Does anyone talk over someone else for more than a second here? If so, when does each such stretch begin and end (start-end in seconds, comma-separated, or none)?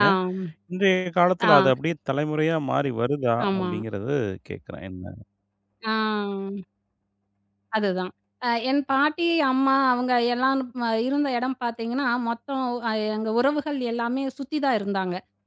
none